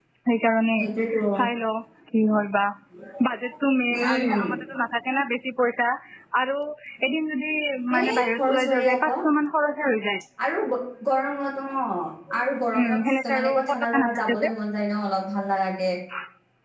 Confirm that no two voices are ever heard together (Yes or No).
No